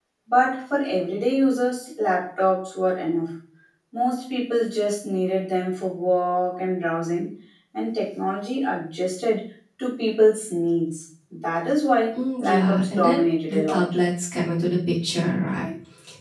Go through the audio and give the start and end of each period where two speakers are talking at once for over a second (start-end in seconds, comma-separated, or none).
12.4-13.8